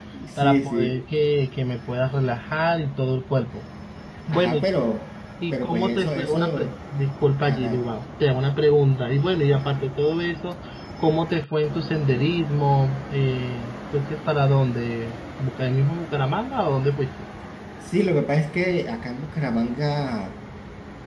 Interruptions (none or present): present